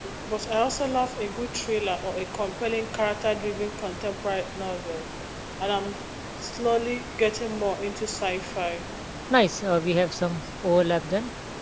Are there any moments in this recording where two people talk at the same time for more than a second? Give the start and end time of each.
none

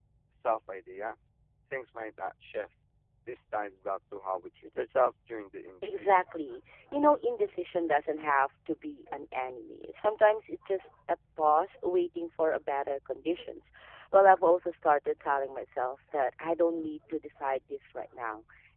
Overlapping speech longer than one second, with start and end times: none

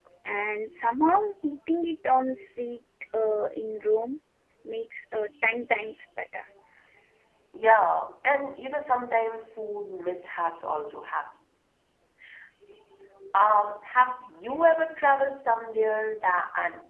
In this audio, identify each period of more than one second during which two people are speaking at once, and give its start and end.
none

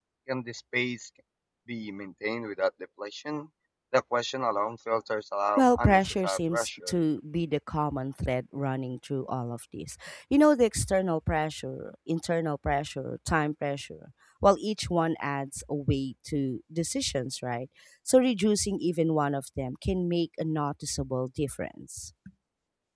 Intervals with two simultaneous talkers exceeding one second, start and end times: 5.6-6.9

